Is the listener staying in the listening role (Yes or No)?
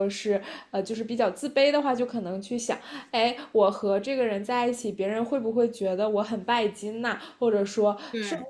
Yes